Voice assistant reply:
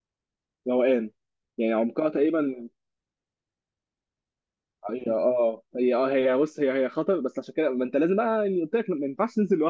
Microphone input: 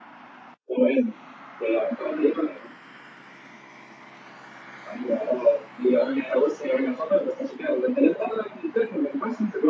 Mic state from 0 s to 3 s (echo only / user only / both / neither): echo only